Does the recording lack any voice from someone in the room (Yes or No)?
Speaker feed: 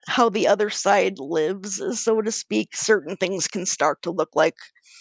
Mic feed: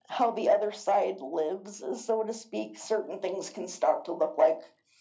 Yes